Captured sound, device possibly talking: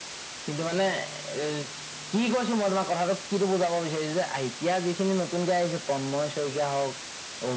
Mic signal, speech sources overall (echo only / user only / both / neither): echo only